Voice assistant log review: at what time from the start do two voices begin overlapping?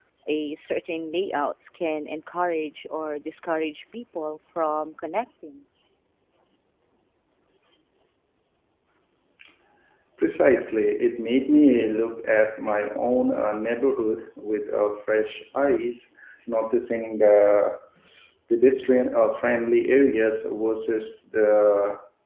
none

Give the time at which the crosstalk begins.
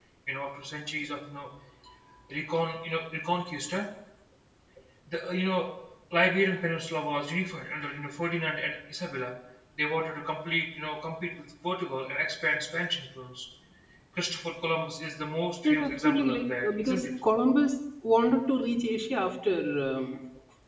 15.6 s

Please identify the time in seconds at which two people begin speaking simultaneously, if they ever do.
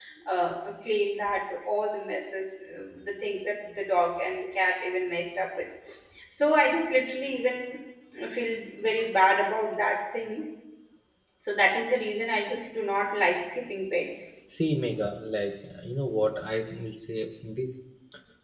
none

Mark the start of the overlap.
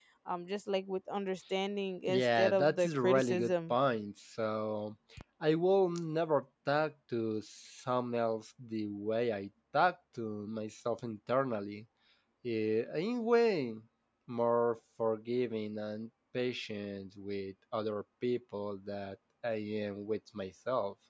2.1 s

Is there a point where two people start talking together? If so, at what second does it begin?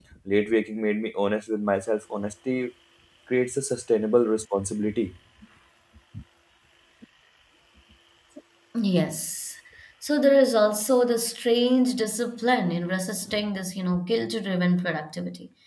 none

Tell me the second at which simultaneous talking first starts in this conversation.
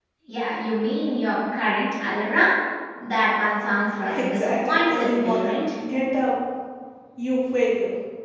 4.1 s

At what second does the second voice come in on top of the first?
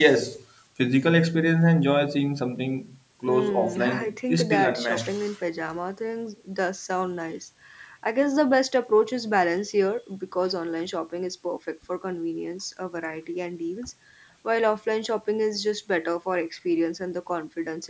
3.2 s

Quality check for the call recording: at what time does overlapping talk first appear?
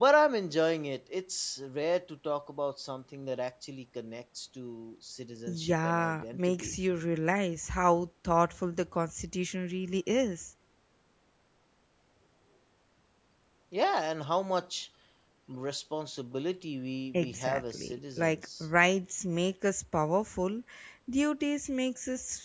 5.5 s

